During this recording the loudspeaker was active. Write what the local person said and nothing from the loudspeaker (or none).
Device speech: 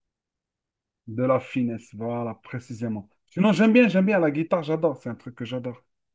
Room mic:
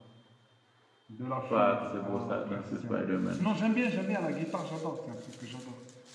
pattes, ses brosses à dents, c'est Spider-Man.